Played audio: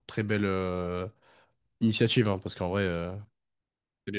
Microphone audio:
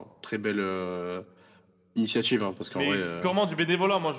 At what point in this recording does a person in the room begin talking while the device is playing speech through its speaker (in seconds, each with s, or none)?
2.7 s